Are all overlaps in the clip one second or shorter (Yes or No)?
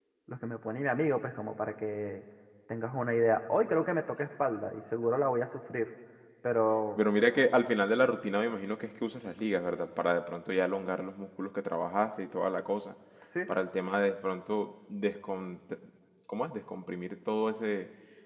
Yes